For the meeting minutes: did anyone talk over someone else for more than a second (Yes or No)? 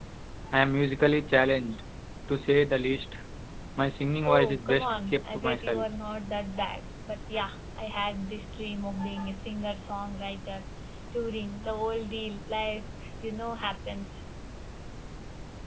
Yes